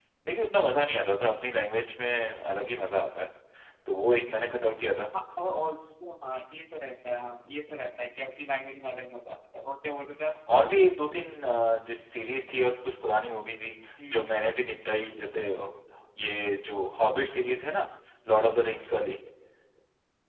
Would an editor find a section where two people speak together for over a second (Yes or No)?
No